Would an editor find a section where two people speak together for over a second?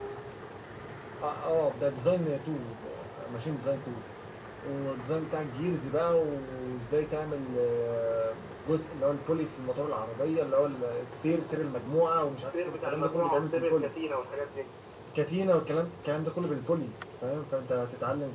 Yes, from 12.4 s

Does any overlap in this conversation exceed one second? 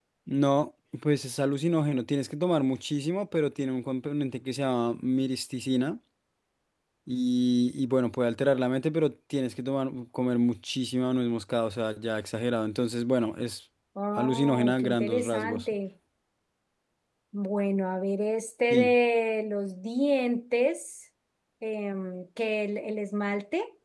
Yes, from 14.2 s

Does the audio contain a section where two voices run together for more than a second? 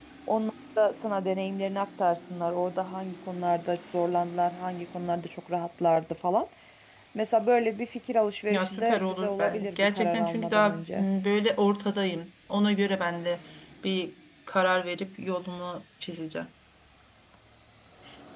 Yes, from 8.5 s

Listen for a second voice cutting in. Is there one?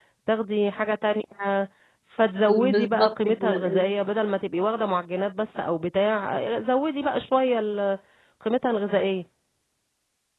Yes, from 2.4 s

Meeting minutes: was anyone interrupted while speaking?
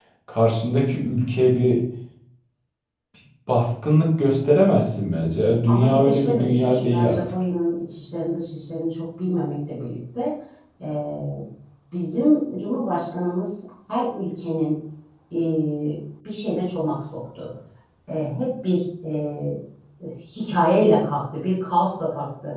Yes, from 5.7 s

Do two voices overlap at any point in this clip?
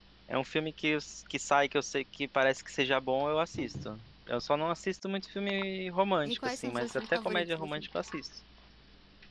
Yes, from 6.2 s

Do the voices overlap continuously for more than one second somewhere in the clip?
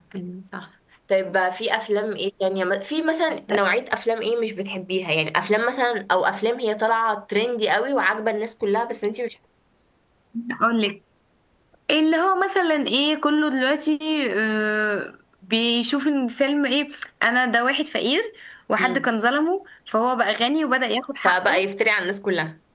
No

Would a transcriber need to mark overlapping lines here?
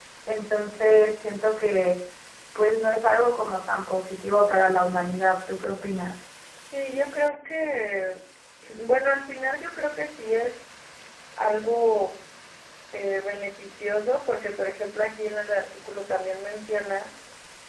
No

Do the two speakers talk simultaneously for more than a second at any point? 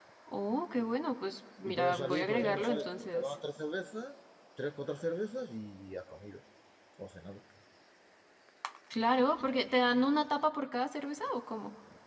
Yes, from 1.6 s

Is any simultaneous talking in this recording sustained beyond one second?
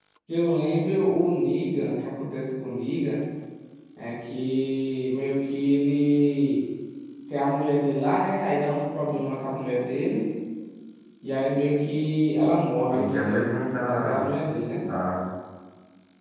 Yes, from 12.9 s

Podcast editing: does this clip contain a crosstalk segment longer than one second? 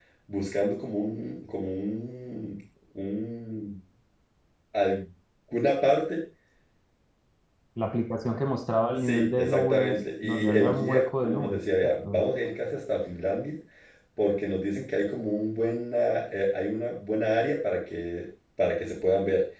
Yes, from 8.9 s

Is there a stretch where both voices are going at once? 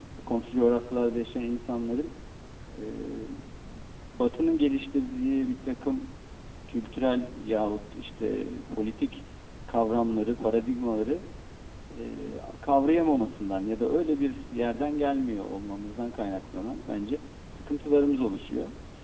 No

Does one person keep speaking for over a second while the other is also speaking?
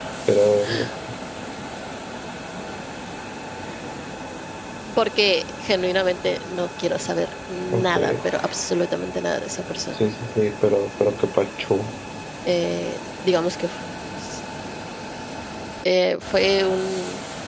No

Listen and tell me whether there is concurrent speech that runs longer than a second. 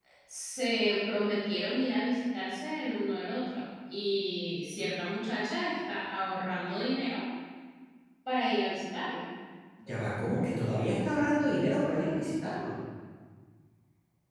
No

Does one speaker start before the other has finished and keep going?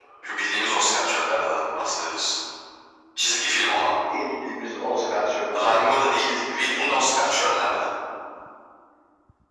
Yes, from 5.5 s

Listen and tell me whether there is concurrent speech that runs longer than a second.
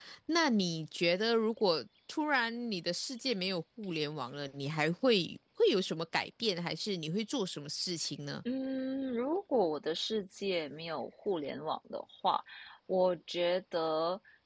No

